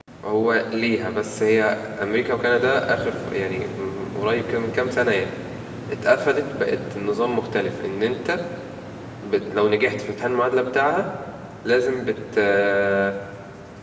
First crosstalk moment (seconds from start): none

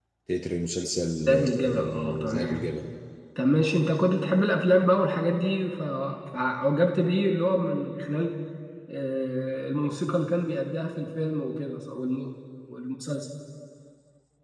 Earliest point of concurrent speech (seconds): 1 s

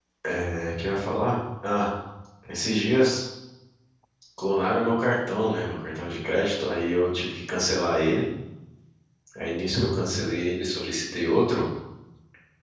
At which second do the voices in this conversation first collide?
none

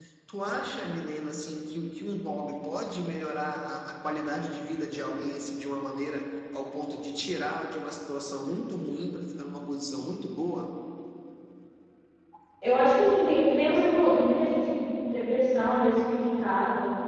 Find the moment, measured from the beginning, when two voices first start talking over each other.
none

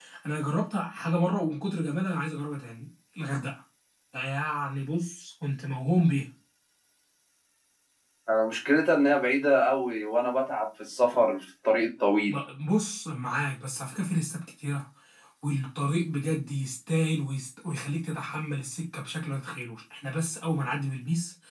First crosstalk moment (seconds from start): none

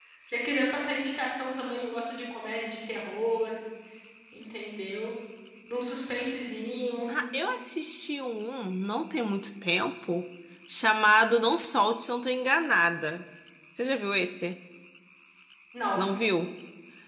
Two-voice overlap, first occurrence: none

